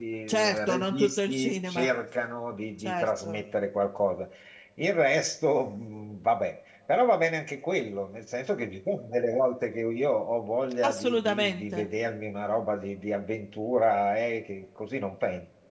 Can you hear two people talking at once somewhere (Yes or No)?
Yes